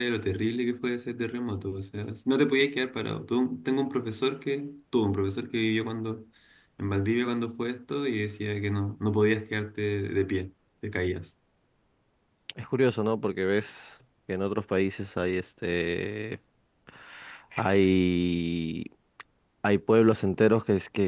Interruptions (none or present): none